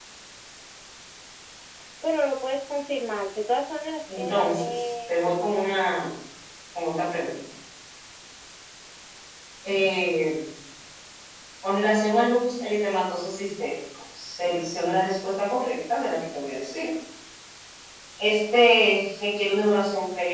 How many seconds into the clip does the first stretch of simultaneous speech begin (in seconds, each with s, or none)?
4.1 s